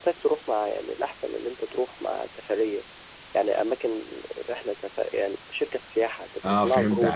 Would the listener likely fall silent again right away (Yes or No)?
No